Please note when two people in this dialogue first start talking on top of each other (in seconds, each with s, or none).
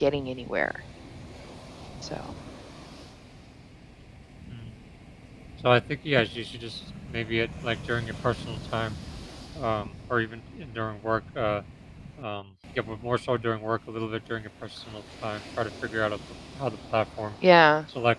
none